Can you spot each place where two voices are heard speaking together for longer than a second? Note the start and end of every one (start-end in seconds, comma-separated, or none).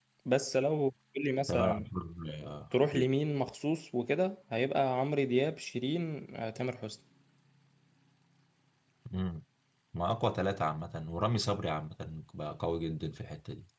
none